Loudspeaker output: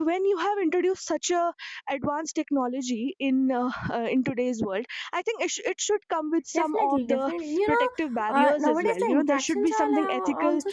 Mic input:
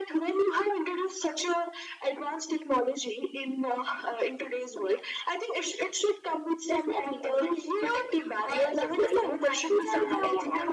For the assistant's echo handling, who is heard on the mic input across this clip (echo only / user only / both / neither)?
echo only